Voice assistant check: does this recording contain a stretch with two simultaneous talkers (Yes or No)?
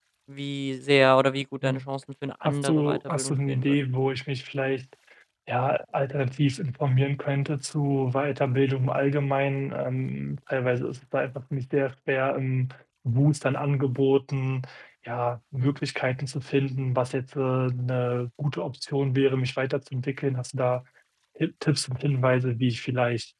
Yes